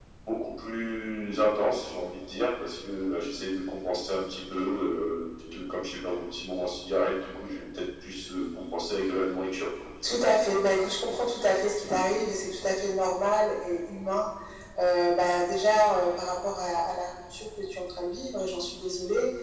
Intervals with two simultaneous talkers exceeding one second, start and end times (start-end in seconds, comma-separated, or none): none